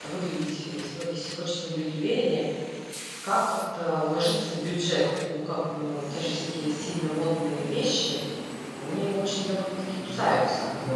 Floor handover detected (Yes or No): Yes